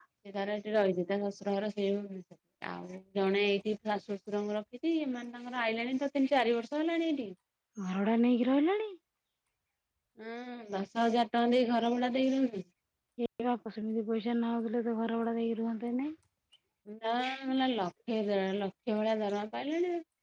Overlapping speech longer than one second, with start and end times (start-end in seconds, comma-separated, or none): none